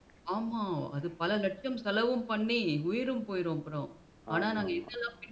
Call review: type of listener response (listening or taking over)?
listening